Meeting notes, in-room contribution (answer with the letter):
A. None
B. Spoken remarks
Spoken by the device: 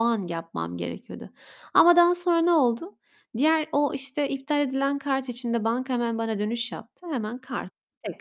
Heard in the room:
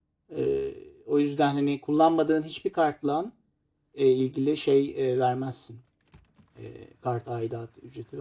B